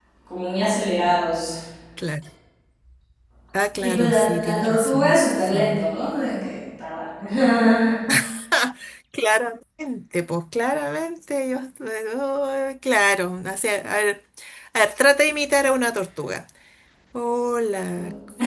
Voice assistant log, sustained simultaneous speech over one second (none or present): present